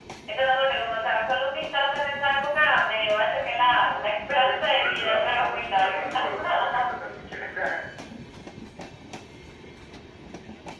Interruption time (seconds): 3.5 s

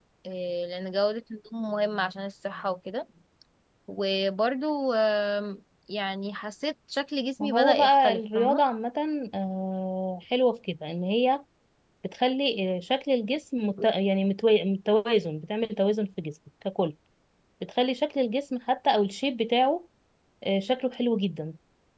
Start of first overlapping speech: 7.4 s

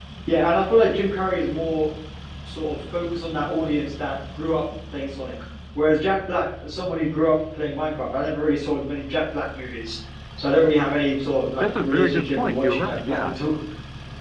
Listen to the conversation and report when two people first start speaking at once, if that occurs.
11.6 s

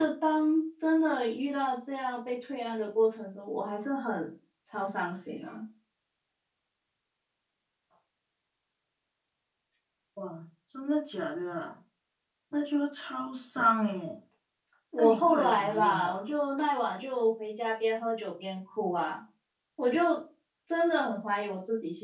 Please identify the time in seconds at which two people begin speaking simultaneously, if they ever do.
15.0 s

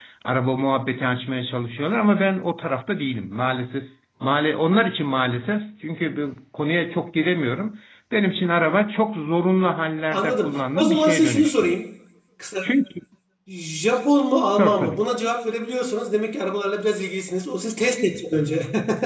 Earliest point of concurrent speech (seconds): 10.1 s

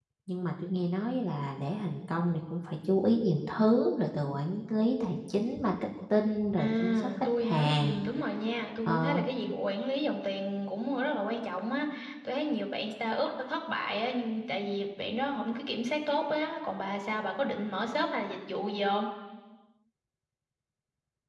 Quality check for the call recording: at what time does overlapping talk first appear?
6.6 s

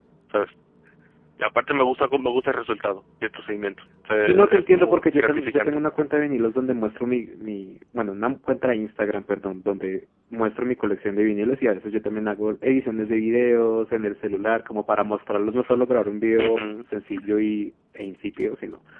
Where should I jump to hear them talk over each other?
4.2 s

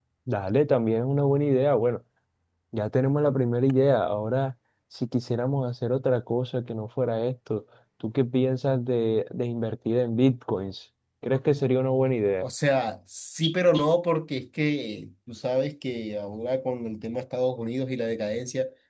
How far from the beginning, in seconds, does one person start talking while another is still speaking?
none

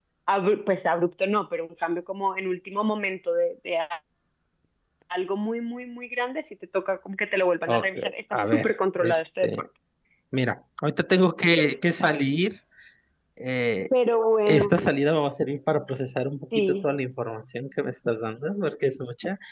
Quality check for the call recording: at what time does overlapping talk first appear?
7.7 s

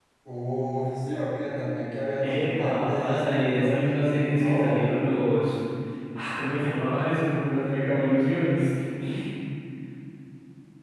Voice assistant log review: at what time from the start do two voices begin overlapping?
2.2 s

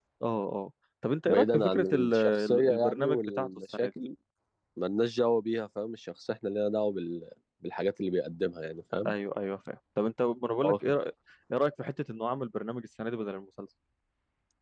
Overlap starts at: 1.3 s

